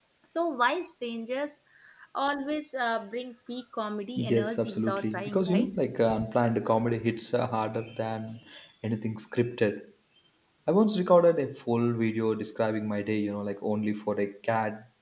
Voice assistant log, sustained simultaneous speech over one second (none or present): present